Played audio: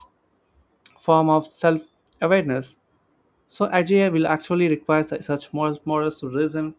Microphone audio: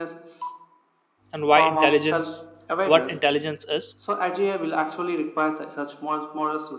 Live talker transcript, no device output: and why intelligence, what intelligence is

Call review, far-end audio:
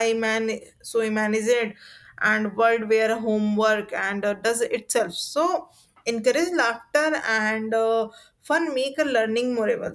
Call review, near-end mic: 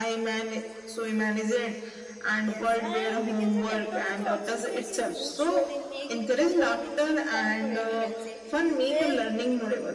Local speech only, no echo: Yes, and we can say technology also plays a huge role in making the learning fun today, we can say. With

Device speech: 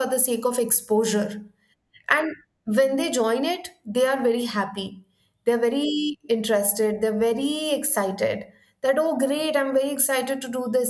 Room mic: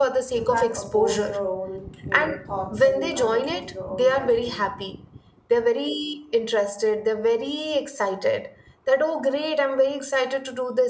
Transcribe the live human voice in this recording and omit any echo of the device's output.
you can't oppose your own you know thoughts and you can't oppose your own judgment

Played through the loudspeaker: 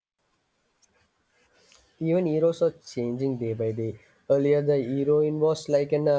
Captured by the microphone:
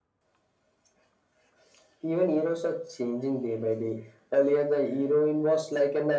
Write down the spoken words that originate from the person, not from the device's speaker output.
none

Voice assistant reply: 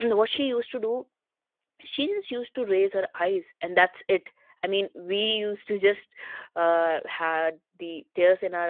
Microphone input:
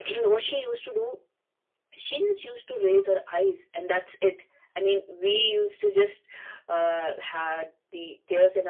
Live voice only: none

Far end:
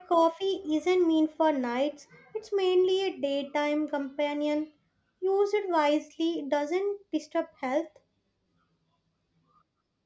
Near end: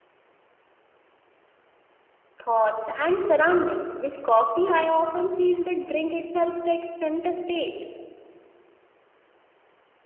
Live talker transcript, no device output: thoughts, and surroundings. With coffee, I often feel the drink itself takes center stage.

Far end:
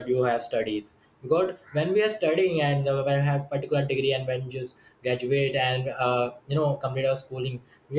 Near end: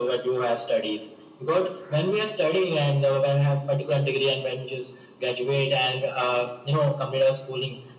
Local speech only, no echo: none

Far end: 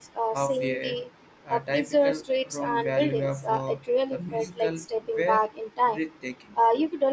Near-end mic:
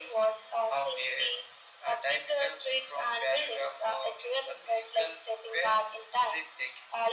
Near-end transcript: none

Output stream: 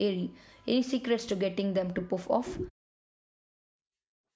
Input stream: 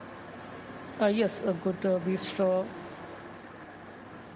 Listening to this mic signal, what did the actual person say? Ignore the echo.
Uh, yes, a good uh, beef straw

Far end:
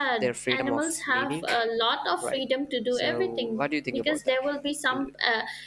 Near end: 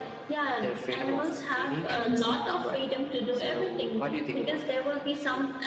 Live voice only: mm-hmm.

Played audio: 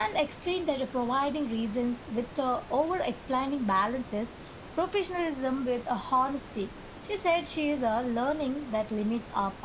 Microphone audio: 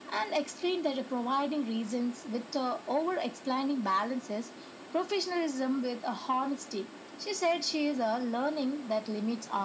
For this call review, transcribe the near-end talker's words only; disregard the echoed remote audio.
none

